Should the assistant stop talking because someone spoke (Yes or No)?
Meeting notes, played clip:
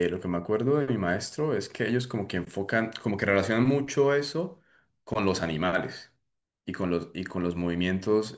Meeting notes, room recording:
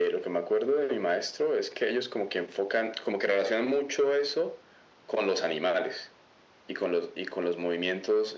No